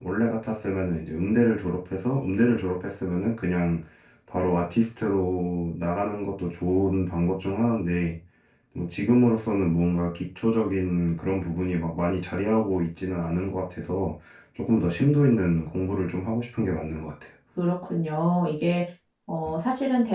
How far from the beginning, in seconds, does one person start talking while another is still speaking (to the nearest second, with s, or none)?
none